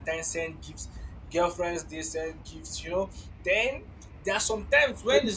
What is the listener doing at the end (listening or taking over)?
listening